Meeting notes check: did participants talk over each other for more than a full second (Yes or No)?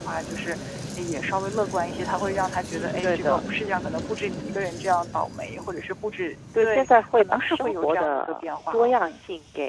Yes